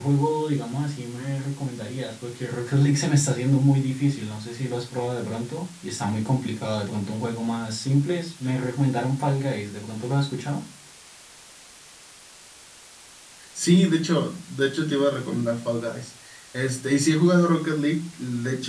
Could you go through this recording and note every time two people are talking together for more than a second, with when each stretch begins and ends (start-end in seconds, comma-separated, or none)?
none